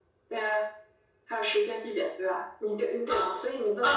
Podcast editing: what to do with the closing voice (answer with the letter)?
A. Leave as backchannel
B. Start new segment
B